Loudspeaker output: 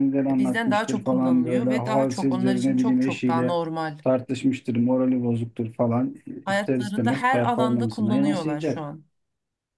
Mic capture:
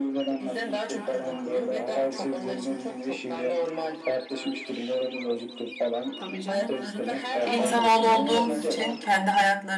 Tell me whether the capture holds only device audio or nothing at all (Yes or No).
No